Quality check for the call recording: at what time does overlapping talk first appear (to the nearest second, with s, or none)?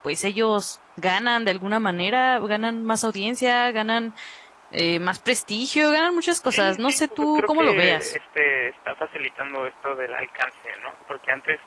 6 s